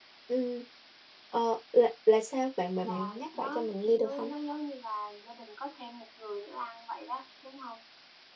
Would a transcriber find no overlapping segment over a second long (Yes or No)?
No